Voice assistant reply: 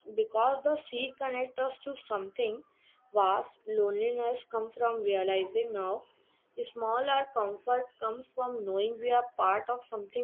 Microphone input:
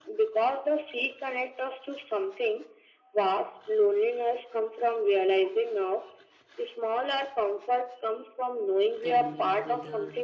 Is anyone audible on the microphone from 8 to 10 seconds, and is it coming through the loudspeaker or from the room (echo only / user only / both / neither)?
both